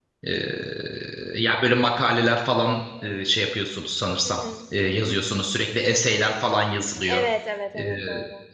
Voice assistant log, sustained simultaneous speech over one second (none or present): none